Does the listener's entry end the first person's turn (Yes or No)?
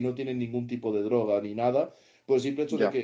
No